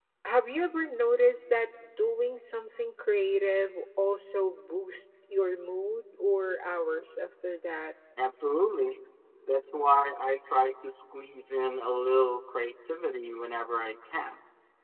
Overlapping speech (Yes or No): No